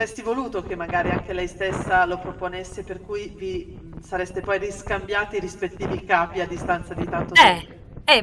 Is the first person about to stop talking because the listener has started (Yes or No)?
Yes